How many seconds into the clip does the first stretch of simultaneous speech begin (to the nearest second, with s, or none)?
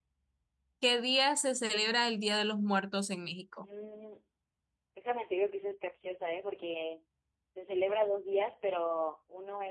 none